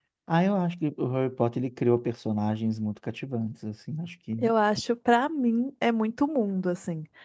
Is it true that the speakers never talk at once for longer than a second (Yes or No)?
Yes